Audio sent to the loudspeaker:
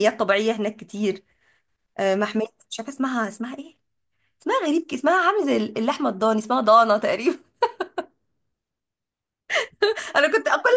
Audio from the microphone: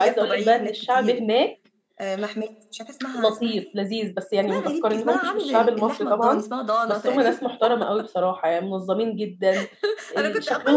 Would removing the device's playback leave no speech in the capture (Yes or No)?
No